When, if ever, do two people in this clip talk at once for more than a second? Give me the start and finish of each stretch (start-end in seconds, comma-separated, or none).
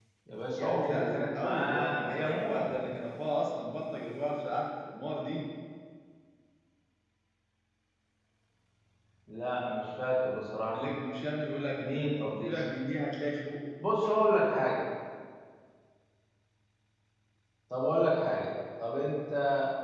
0.6-2.7